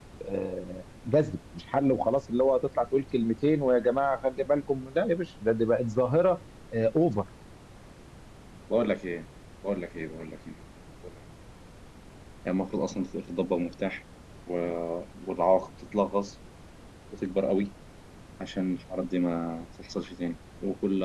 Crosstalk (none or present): none